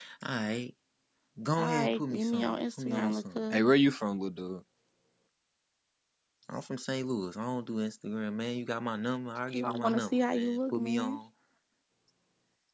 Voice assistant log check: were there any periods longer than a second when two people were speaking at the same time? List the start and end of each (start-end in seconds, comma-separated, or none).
1.6-3.6, 9.5-11.2